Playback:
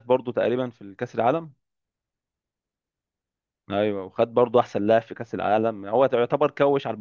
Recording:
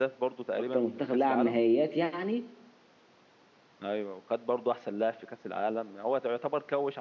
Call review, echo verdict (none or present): present